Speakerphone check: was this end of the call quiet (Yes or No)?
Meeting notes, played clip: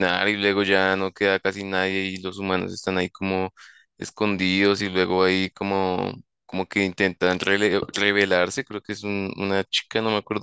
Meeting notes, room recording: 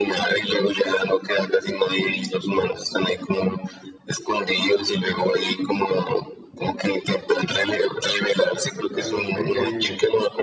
No